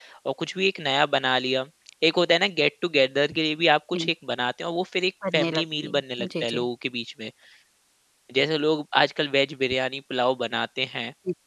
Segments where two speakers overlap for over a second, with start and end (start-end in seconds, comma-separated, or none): 5.3-6.6